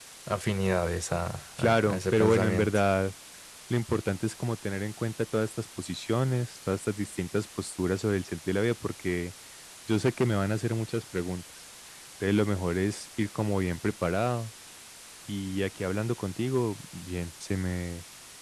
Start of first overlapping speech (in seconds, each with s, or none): 1.6 s